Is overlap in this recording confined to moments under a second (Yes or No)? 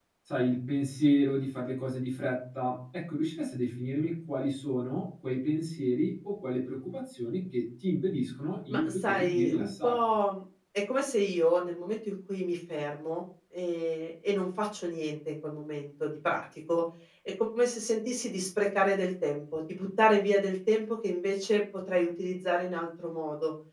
No